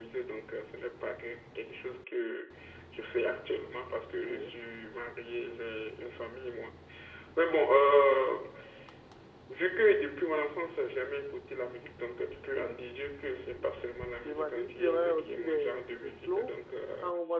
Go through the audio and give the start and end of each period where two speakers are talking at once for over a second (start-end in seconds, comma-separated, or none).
14.2-16.5